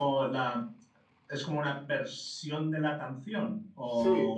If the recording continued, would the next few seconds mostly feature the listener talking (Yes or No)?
Yes